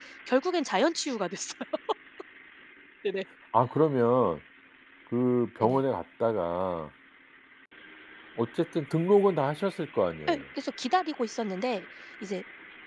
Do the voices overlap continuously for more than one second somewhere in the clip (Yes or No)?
No